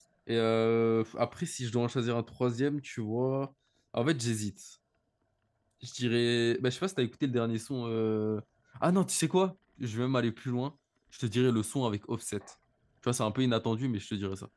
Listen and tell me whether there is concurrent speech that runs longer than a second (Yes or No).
No